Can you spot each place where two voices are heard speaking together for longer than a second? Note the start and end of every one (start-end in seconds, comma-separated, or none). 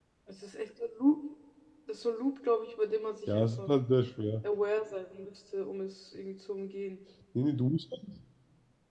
none